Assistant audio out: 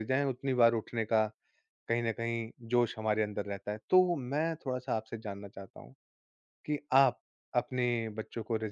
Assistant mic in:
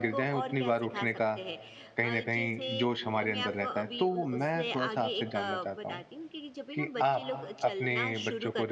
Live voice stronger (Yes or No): No